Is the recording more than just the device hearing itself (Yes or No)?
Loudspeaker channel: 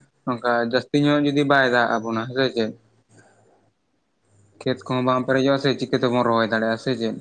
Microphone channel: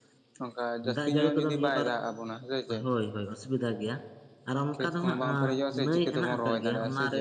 Yes